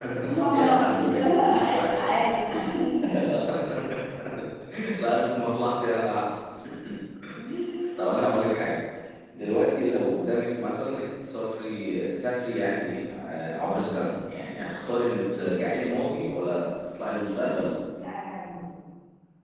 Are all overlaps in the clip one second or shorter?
No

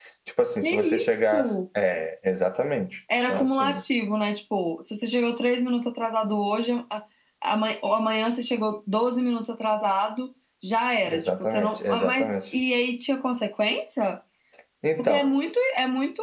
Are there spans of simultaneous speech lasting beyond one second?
Yes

